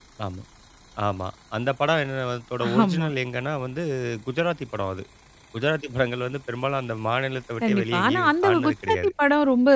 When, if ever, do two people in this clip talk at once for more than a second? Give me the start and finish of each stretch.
7.6-9.1

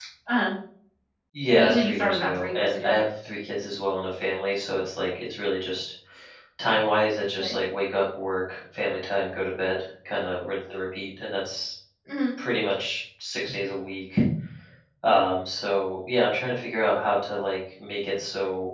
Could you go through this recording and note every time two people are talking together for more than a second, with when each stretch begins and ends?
1.6-2.9

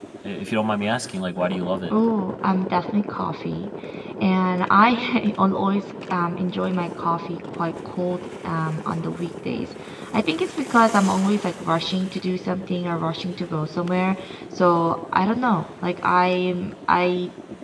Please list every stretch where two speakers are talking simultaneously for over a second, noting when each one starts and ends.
none

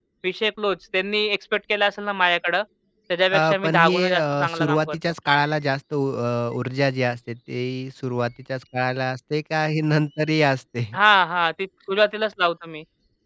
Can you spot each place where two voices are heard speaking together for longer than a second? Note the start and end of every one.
3.3-5.0

